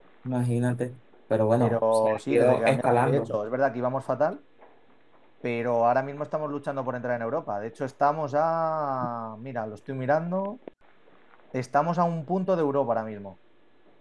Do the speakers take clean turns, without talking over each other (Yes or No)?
No